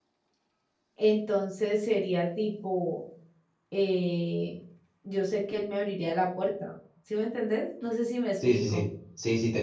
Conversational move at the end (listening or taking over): taking over